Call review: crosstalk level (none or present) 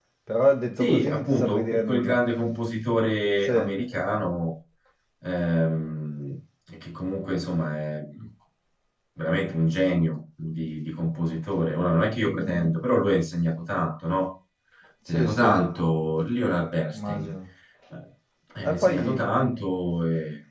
present